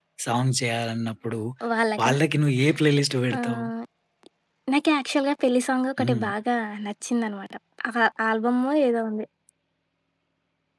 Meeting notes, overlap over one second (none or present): none